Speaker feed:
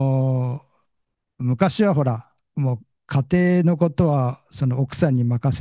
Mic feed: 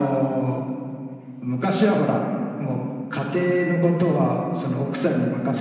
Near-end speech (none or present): none